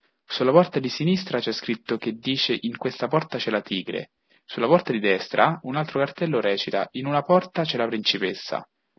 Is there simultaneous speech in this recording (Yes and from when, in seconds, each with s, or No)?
No